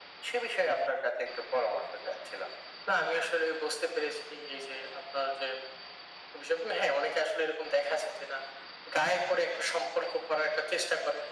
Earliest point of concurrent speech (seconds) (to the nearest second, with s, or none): none